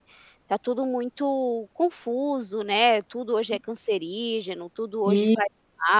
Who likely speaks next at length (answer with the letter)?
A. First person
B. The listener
A